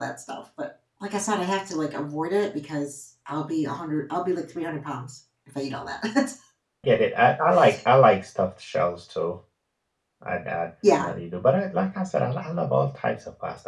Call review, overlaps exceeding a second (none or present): none